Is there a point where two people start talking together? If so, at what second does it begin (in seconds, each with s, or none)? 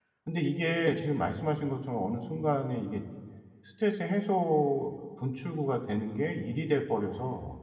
none